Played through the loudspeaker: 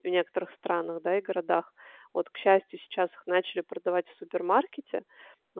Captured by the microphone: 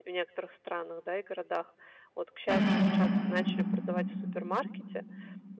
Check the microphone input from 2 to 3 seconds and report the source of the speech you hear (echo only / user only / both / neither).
both